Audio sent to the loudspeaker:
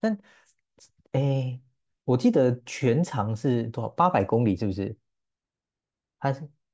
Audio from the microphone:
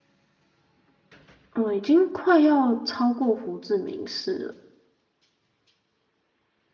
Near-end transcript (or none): 嗯，已经快要超过胡志明市了，